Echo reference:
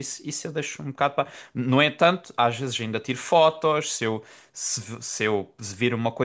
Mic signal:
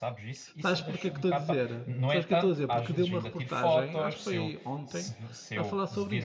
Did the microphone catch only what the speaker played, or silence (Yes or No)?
No